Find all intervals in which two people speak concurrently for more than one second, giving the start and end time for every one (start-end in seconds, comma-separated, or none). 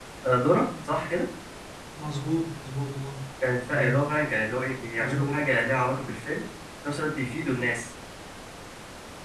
none